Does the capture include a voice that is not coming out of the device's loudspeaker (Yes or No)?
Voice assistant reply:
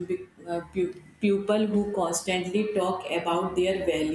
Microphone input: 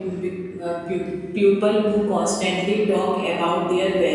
No